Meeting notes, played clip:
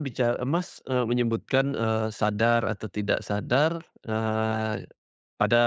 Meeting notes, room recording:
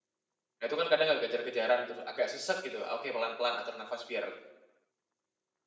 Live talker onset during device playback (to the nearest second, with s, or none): 1 s